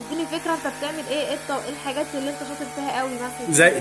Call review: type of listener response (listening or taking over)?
taking over